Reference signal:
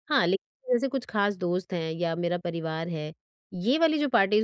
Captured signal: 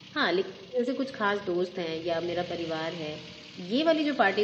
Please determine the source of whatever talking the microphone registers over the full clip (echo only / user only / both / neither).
echo only